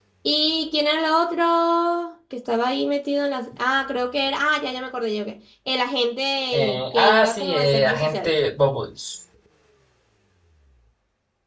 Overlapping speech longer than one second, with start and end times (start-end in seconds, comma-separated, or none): 6.5-8.3